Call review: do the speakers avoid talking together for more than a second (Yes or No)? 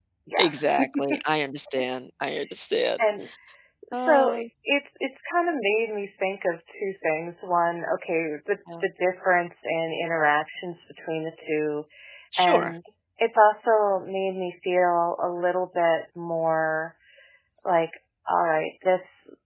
Yes